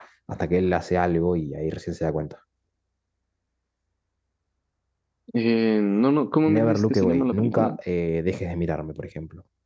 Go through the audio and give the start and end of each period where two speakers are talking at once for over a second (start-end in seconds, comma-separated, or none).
6.4-7.7